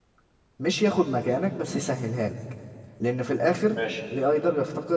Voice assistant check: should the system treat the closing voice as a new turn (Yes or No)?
No